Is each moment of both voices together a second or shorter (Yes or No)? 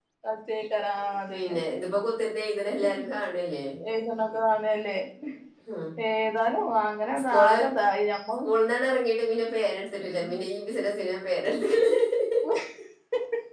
Yes